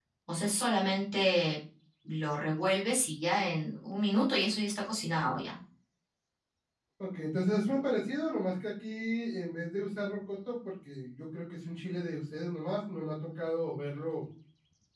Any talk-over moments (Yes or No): No